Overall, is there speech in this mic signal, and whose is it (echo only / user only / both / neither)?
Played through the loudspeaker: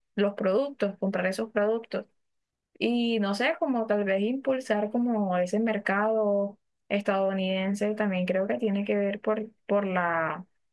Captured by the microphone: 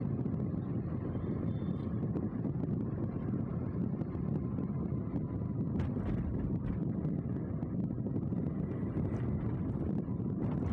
neither